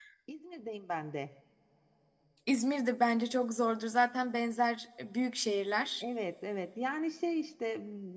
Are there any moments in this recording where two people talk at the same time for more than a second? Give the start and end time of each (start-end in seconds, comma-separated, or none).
none